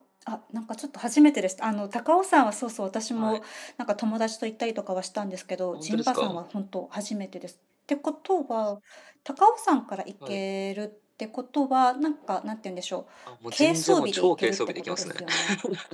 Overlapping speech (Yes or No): Yes